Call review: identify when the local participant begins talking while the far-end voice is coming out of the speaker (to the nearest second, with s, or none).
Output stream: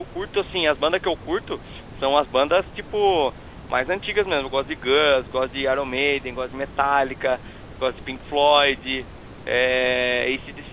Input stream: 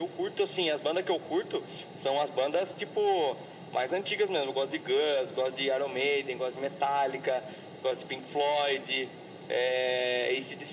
none